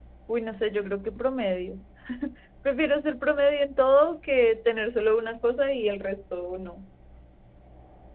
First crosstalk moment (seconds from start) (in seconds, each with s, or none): none